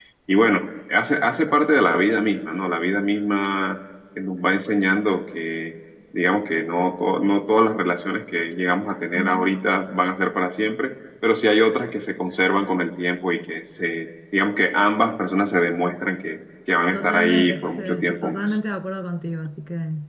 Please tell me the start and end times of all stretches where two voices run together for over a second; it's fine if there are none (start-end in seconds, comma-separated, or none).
16.9-18.6